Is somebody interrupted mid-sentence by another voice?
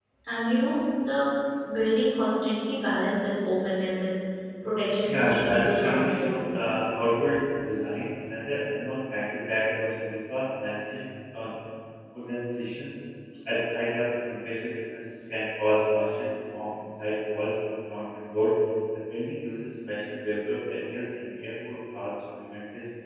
Yes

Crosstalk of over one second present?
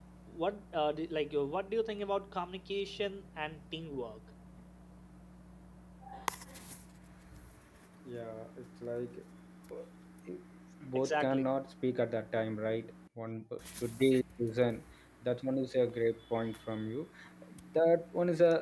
No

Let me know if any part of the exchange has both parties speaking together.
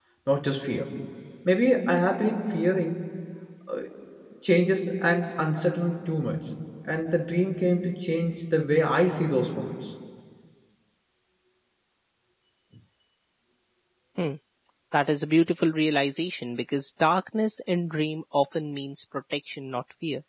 No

